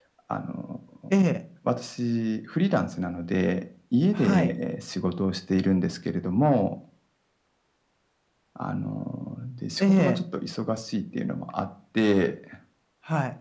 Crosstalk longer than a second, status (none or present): none